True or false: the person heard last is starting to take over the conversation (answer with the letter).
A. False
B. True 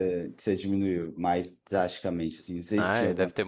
B